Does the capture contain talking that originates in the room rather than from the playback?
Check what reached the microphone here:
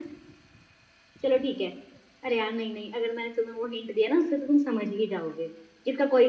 No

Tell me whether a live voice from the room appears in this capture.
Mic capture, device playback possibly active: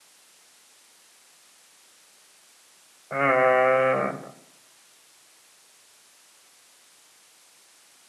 Yes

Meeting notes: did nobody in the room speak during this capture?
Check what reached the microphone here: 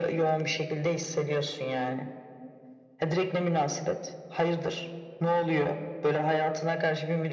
Yes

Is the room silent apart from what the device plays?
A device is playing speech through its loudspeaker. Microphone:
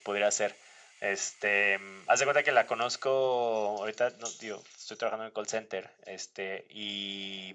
Yes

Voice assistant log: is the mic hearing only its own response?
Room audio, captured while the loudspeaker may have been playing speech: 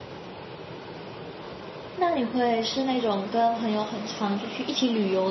No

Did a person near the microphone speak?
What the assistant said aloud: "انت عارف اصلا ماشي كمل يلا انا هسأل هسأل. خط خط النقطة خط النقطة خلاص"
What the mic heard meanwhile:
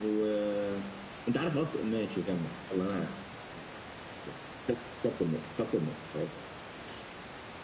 No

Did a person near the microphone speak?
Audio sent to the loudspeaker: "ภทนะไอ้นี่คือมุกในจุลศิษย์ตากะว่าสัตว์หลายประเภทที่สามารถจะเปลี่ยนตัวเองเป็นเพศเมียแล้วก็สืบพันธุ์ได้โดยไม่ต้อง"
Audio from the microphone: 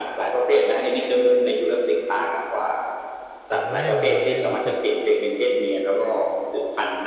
Yes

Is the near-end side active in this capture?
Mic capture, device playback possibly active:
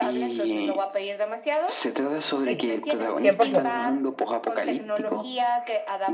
Yes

